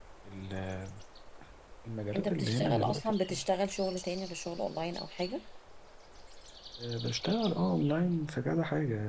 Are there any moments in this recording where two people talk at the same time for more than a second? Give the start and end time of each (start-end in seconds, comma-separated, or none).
2.1-3.5